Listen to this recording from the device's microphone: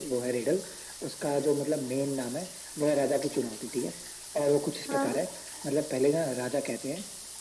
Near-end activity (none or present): present